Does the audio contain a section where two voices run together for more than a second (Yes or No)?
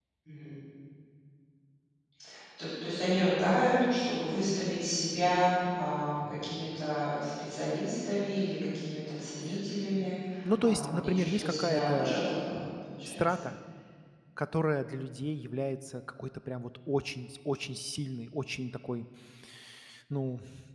Yes